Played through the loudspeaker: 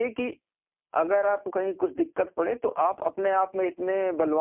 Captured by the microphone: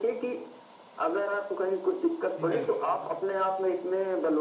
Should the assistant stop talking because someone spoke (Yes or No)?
Yes